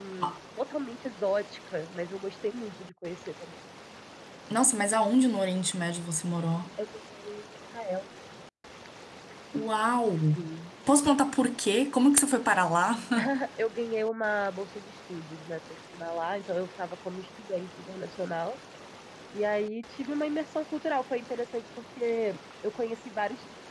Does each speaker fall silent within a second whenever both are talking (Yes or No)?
Yes